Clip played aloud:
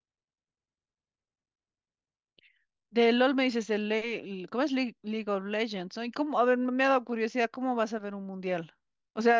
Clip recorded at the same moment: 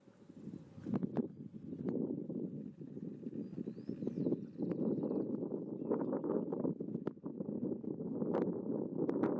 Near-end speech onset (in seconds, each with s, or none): none